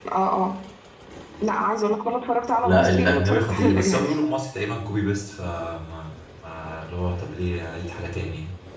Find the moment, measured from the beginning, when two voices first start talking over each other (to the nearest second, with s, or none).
3 s